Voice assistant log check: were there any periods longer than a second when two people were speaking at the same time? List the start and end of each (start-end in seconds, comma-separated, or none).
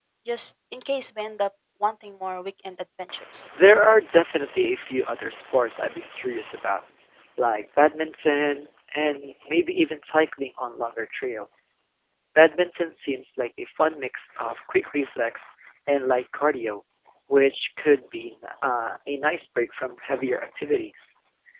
none